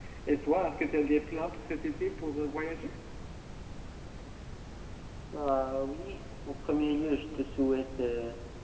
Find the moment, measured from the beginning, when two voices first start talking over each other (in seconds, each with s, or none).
none